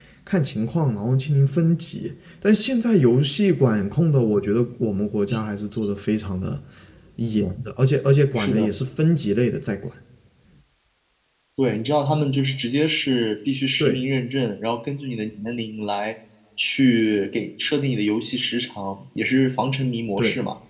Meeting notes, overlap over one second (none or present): none